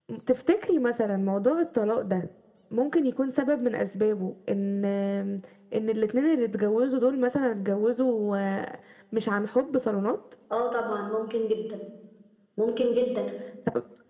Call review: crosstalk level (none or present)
none